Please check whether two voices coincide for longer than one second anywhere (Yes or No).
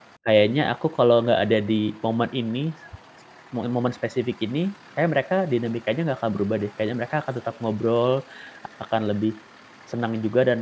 No